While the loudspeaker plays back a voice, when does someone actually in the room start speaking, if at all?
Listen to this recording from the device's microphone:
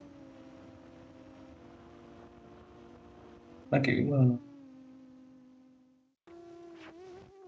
3.7 s

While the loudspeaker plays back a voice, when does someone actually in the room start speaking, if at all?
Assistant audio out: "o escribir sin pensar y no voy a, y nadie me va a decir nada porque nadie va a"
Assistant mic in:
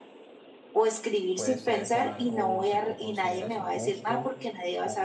1.3 s

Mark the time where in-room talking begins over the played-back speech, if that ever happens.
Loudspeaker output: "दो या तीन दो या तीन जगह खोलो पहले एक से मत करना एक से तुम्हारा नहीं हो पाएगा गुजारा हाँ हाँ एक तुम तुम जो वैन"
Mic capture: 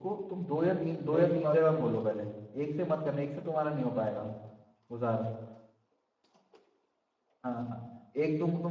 1.1 s

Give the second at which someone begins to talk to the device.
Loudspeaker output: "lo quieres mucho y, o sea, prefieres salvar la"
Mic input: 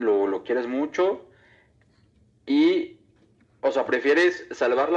none

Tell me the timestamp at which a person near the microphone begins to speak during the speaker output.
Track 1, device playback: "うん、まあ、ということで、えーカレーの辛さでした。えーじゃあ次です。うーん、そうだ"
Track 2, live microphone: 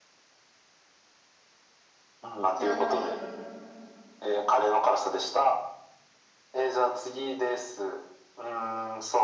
2.5 s

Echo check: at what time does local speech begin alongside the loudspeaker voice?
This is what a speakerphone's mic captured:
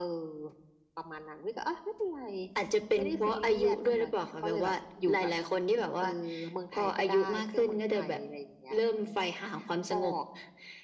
none

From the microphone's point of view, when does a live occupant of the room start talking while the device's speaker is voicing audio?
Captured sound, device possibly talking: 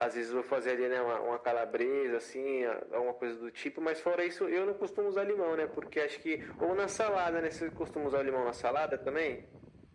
none

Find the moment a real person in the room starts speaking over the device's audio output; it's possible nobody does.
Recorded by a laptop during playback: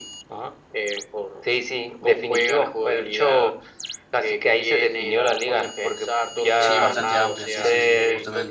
6.6 s

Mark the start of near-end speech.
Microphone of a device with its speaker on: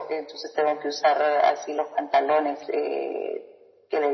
none

